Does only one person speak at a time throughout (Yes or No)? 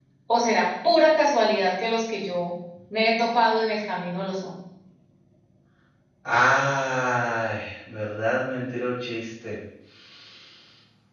Yes